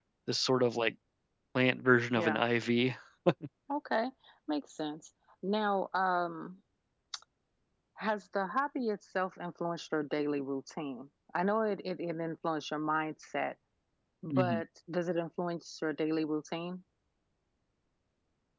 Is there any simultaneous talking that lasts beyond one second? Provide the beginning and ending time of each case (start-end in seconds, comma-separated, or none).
none